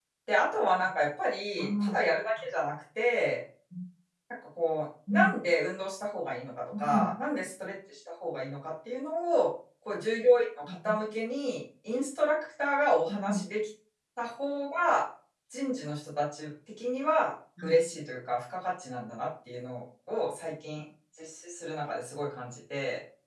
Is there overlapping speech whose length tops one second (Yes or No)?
No